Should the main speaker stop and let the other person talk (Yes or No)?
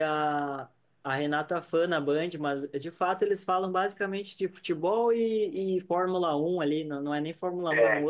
No